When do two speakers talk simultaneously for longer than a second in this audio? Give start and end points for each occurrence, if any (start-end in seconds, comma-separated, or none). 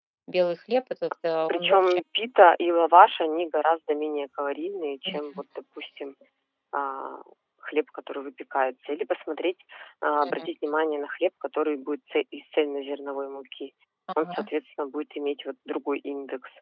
none